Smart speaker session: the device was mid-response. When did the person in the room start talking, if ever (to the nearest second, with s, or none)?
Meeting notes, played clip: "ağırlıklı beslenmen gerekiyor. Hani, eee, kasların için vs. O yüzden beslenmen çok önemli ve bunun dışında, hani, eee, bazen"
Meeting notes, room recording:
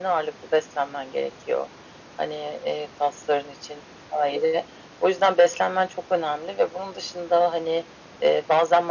none